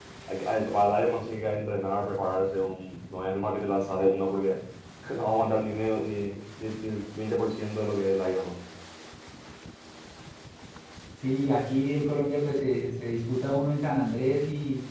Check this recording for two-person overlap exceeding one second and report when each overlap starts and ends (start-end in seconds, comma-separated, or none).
none